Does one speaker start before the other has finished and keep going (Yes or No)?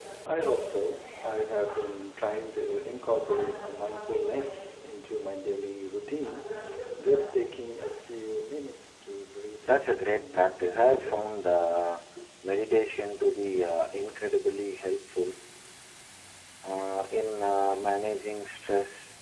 Yes